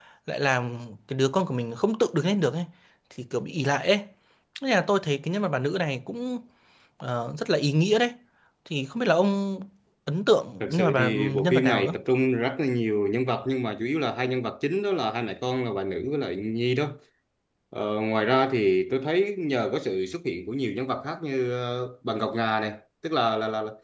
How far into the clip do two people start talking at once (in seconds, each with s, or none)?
10.6 s